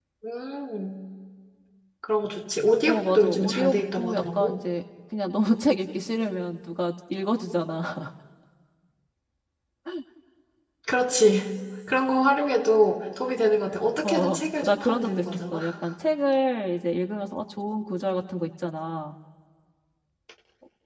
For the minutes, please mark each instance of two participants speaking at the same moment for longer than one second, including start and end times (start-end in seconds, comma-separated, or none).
2.9-4.5, 14.0-15.6